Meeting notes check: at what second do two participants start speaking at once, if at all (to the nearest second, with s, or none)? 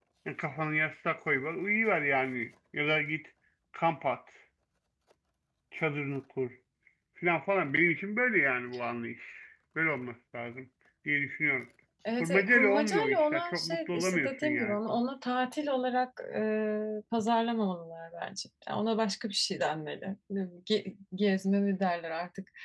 12 s